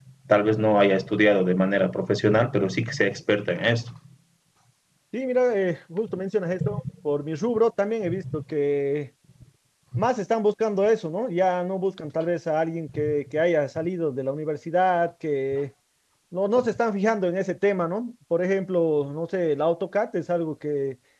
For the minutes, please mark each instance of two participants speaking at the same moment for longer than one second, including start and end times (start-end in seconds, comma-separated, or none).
none